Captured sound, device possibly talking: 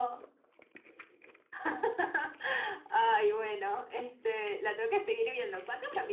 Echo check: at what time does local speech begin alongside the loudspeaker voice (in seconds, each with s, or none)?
none